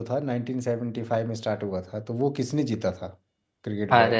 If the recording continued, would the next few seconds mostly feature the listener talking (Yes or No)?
Yes